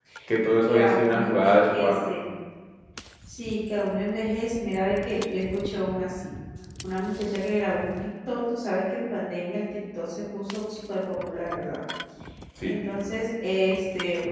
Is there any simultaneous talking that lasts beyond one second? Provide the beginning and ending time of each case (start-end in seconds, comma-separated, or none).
0.7-1.9